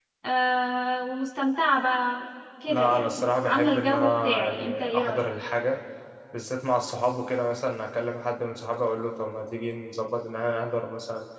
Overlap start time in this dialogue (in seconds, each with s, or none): 2.7 s